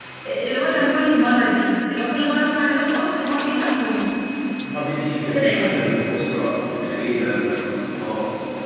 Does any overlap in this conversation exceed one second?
No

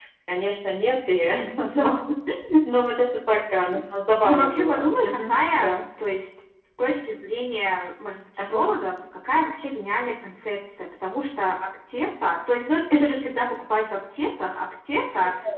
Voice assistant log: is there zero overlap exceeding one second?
No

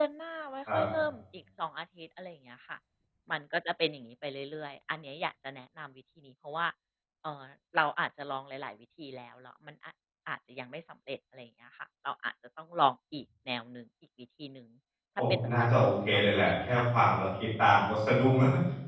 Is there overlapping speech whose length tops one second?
Yes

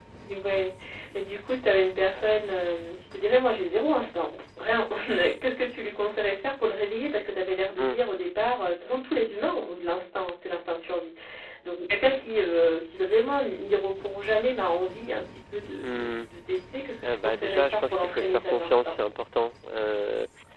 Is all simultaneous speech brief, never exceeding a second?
No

